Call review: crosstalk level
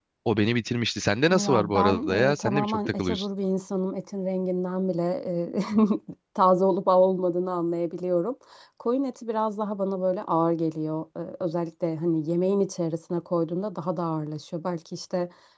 present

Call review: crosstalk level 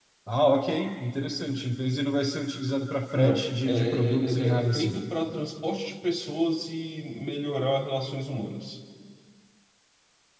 present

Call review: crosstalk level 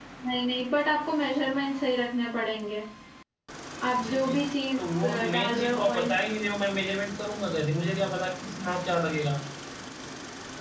present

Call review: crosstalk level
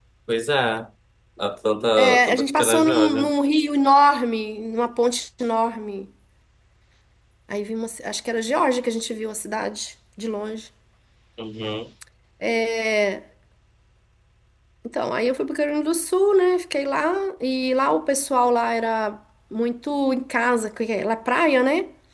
present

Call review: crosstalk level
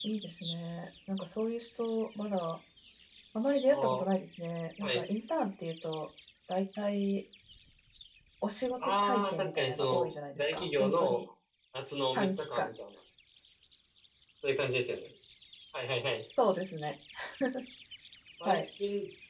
present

